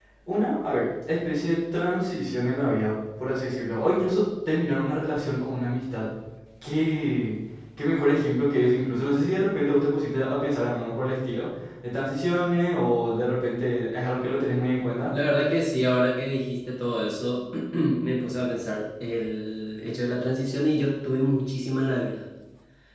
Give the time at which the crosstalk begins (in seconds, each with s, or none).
none